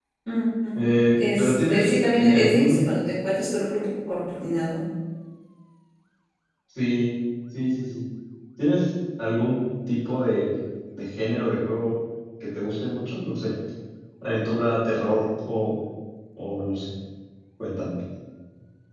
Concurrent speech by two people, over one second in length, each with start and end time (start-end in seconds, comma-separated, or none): 1.1-2.8